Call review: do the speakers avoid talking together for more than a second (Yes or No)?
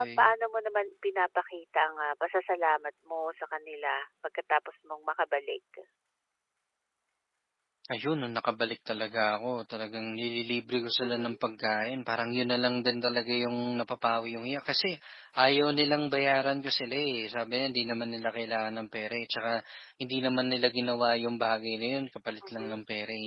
Yes